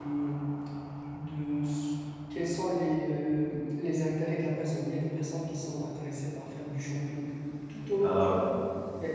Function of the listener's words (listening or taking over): listening